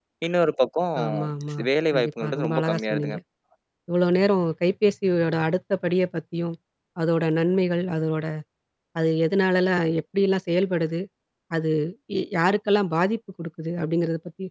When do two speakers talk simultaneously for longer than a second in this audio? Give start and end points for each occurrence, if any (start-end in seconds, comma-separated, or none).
1.9-3.2